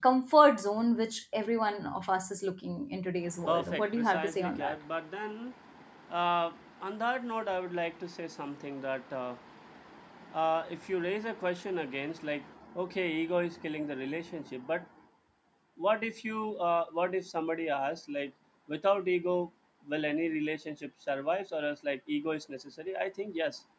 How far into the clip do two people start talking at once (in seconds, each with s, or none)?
3.5 s